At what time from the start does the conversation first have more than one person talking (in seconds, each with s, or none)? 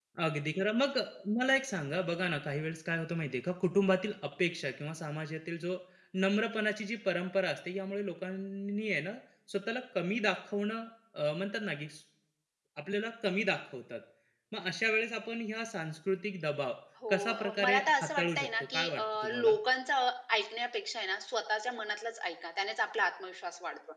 17.0 s